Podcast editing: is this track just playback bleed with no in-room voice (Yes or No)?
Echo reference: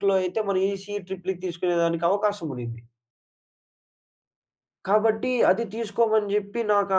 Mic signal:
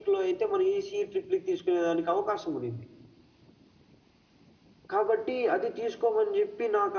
Yes